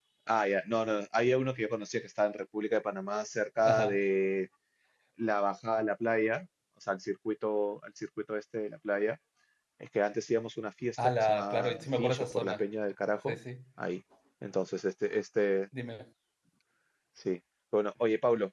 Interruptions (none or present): present